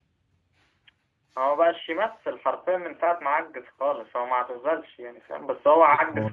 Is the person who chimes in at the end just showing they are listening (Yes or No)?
Yes